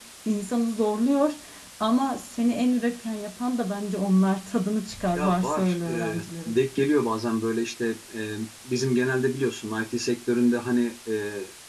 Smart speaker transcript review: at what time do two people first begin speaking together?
5.2 s

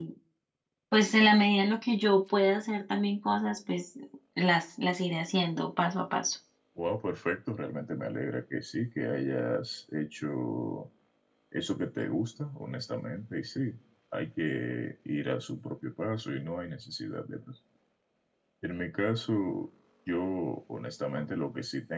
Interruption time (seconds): none

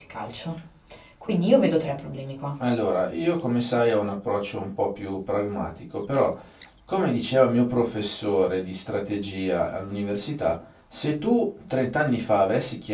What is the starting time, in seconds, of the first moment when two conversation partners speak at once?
none

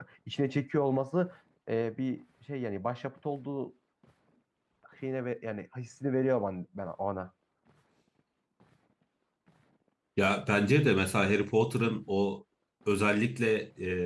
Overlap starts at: none

